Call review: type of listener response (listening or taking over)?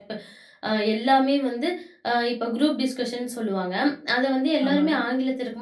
listening